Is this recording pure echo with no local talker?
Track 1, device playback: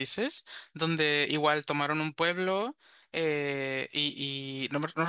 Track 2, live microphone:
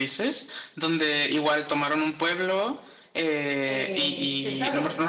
No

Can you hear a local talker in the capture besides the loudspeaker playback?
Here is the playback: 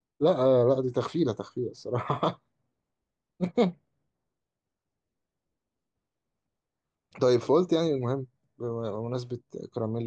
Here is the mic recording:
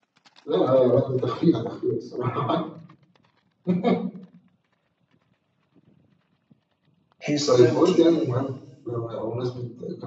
Yes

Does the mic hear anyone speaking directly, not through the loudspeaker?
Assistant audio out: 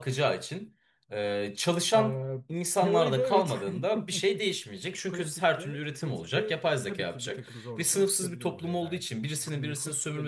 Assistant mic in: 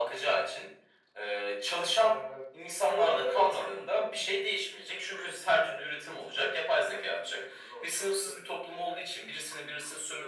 No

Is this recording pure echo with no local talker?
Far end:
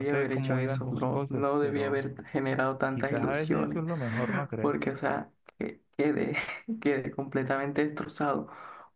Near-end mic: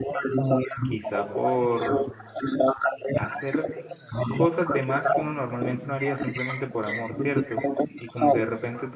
No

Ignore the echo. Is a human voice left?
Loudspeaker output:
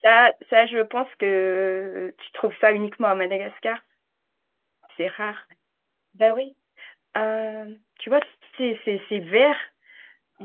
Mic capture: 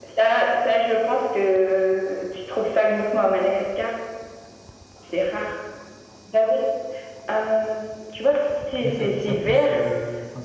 Yes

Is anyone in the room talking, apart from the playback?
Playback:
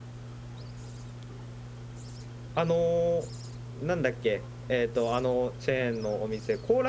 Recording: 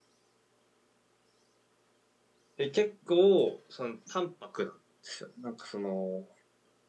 Yes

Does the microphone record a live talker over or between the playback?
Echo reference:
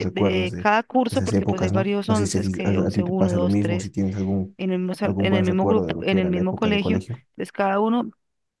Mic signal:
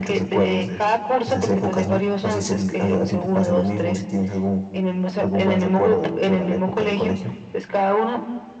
No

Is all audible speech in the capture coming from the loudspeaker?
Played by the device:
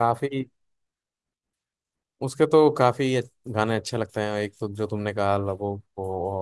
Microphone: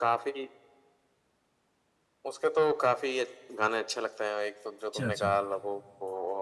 No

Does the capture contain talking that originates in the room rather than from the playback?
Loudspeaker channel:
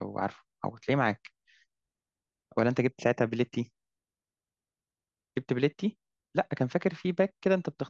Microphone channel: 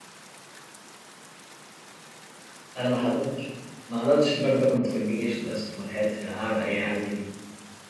Yes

